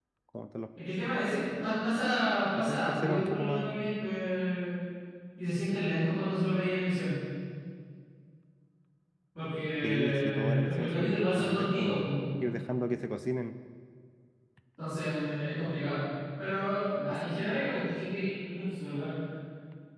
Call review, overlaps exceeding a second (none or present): present